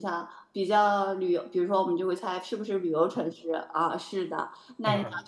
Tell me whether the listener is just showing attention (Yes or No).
Yes